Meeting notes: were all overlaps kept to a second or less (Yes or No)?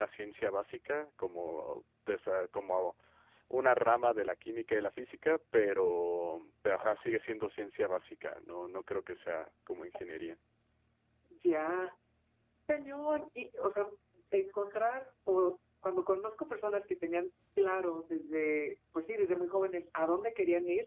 Yes